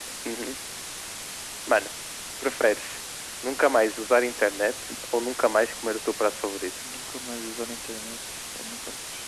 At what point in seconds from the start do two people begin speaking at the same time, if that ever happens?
none

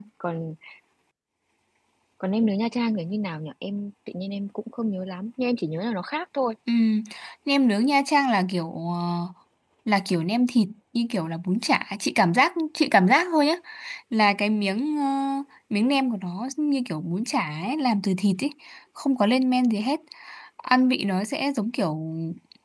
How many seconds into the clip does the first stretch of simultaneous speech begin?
none

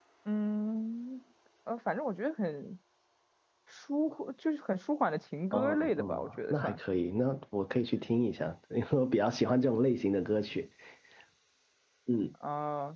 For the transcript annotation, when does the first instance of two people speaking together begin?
5.5 s

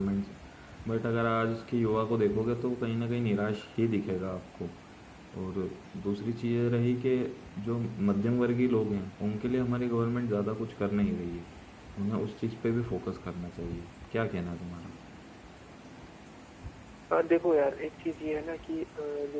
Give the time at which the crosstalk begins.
none

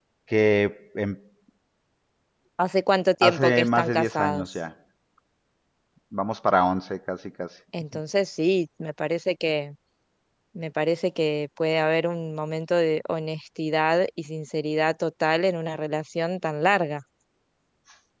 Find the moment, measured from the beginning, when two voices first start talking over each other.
3.2 s

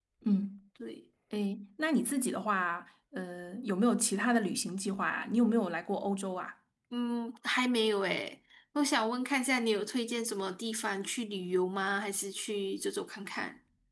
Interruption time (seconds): none

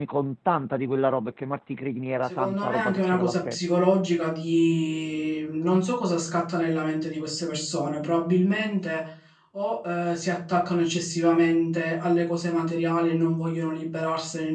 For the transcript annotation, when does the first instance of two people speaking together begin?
2.3 s

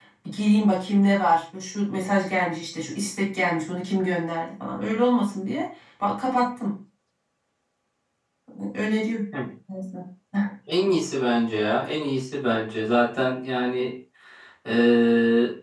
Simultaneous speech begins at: none

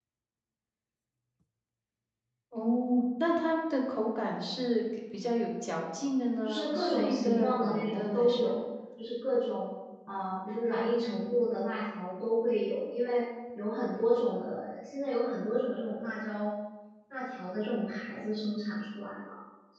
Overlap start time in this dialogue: 6.4 s

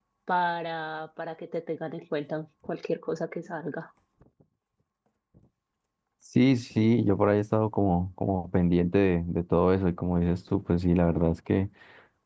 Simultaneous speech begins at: none

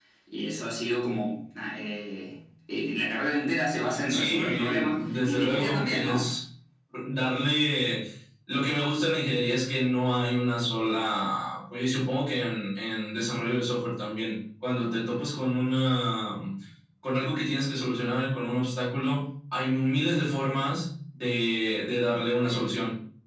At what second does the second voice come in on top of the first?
4.1 s

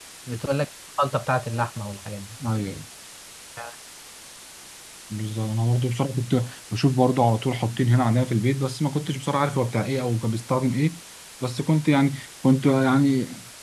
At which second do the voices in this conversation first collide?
none

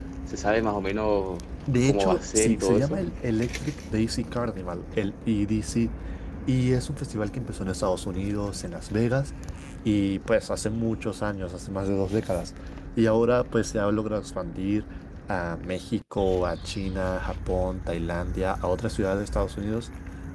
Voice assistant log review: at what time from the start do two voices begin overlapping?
1.9 s

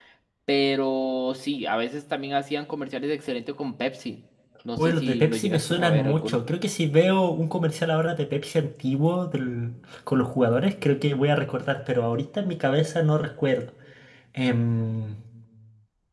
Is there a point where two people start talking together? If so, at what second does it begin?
4.8 s

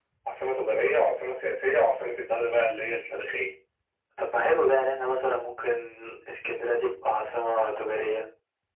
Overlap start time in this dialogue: none

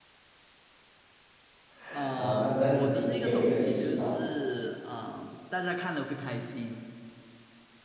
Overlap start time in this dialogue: 2.1 s

